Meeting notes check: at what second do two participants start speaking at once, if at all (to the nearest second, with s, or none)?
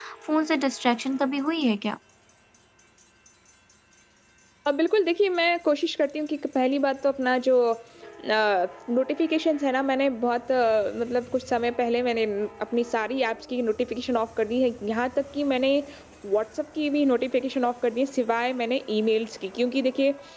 none